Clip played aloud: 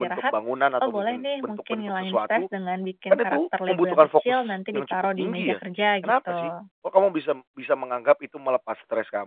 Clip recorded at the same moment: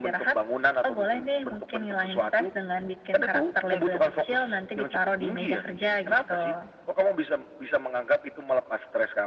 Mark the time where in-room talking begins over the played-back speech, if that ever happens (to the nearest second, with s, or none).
none